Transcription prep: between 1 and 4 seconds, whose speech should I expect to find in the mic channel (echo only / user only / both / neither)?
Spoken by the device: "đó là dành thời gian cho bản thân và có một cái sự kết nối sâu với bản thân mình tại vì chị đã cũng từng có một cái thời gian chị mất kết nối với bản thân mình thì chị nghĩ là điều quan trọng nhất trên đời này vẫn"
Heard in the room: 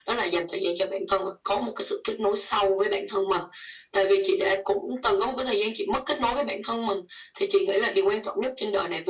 echo only